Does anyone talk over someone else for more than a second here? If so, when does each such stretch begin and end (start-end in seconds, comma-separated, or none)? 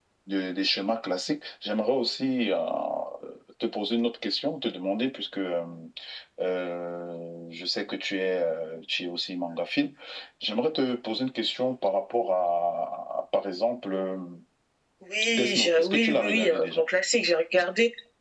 15.3-16.8